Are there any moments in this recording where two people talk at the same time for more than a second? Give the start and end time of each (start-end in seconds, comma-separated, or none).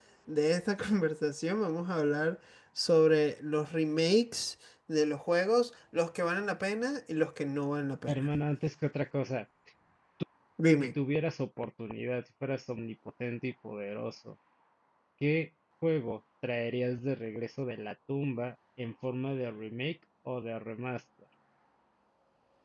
none